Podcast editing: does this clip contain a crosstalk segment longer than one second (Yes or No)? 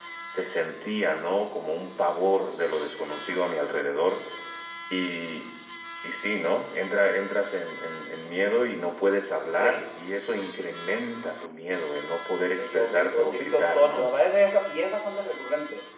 Yes